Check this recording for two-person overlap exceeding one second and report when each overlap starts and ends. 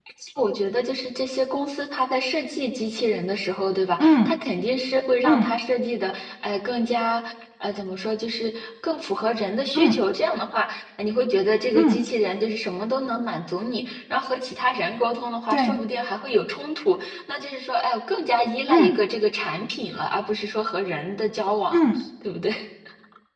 none

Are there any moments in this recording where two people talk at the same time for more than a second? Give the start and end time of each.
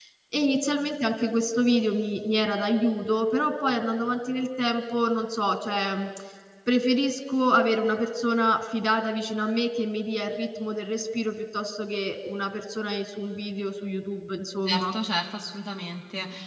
none

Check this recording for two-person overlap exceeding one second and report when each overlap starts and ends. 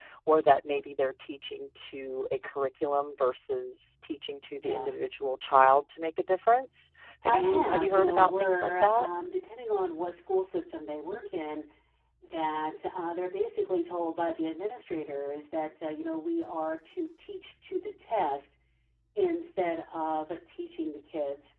7.3-9.1

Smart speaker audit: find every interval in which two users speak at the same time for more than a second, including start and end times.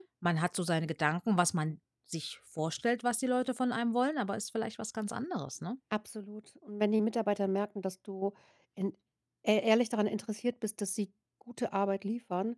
none

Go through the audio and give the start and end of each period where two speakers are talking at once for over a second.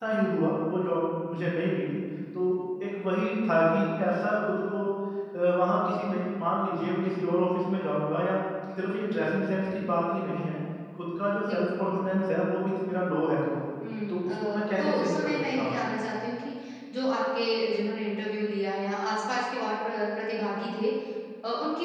14.1-15.8

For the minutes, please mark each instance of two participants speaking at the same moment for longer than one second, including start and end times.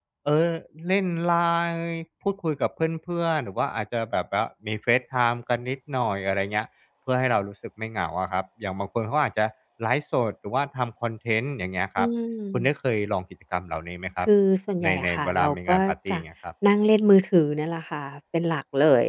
14.8-16.2

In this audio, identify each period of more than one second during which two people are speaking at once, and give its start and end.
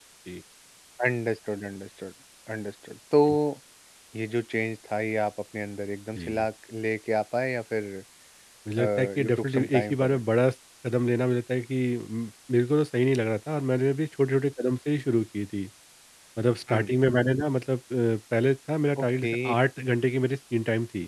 8.8-10.2

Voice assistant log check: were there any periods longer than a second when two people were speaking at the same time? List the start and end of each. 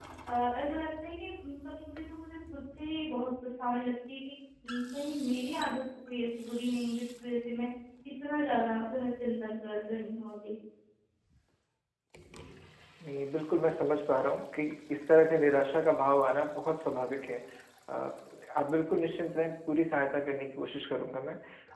none

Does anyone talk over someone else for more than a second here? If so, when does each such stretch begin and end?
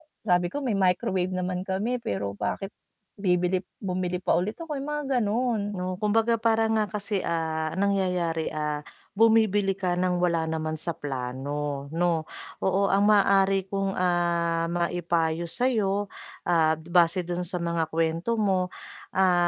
none

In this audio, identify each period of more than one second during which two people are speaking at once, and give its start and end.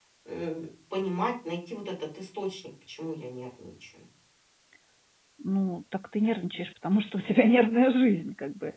none

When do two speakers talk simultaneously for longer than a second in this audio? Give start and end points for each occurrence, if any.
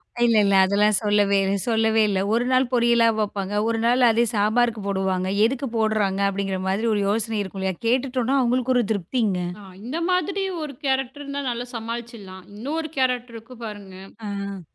none

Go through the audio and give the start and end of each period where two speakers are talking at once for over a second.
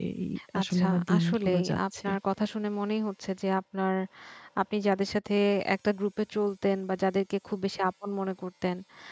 0.6-2.1

